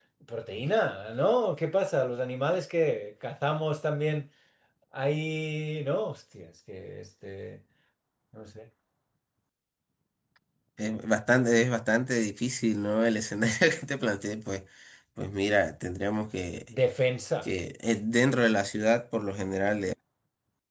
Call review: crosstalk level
none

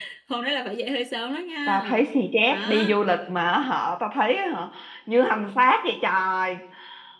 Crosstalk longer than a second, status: none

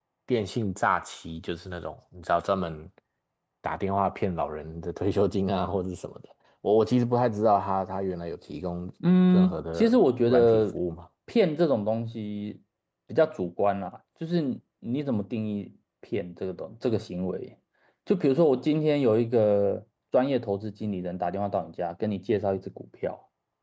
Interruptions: present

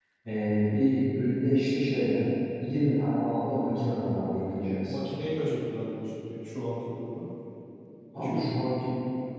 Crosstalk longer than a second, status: none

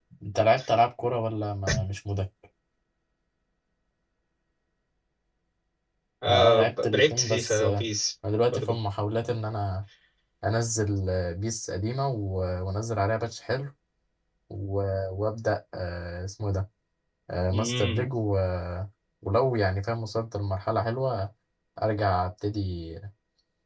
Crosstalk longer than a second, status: present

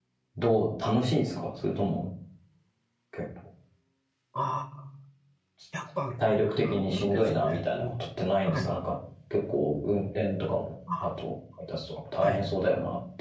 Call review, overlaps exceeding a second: present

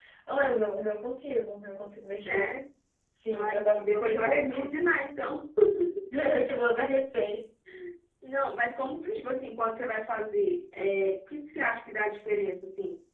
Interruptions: present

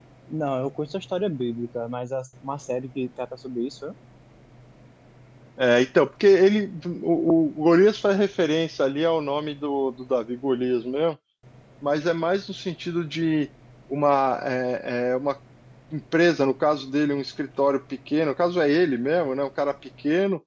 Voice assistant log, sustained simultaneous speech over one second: none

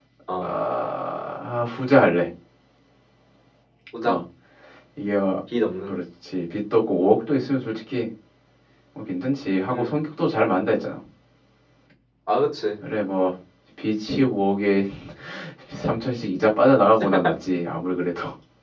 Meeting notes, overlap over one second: none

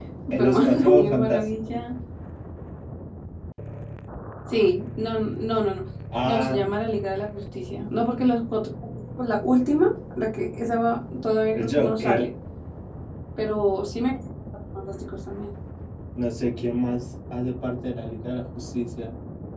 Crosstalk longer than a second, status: present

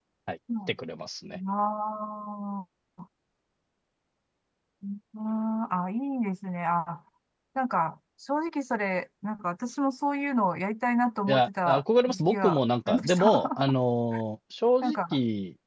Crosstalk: present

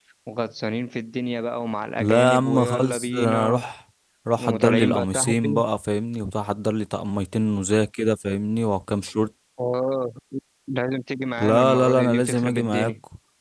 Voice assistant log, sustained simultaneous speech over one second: present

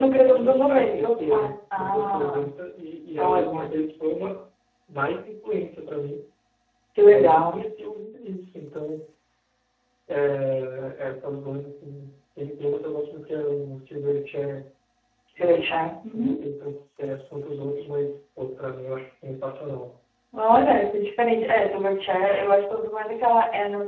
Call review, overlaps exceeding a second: present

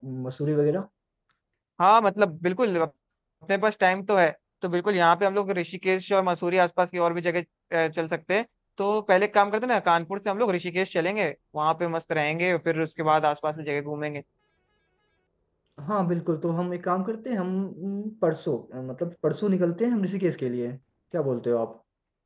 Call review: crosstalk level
none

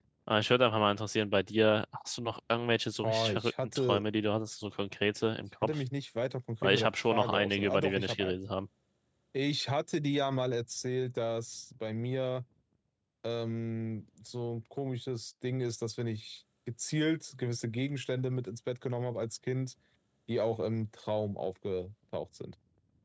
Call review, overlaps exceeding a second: present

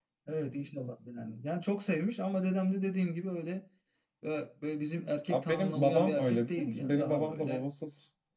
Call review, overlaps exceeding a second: present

